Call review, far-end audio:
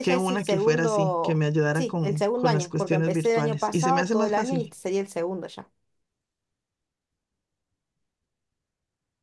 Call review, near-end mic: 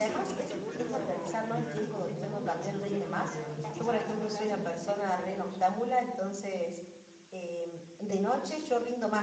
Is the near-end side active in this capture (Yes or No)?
Yes